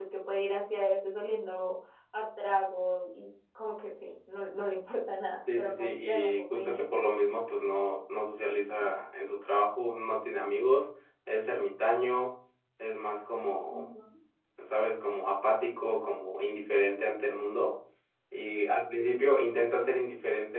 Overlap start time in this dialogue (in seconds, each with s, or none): 5.5 s